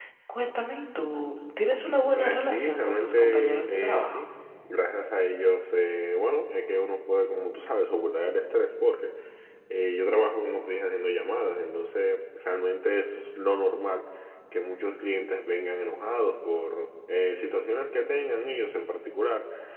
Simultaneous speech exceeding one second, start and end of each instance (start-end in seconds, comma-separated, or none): 2.1-4.2